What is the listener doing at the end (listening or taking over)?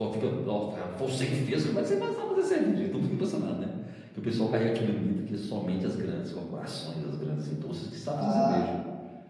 taking over